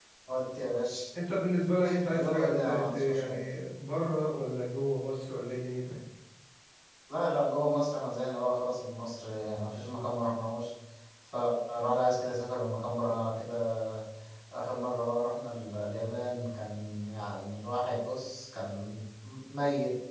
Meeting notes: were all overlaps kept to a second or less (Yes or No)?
No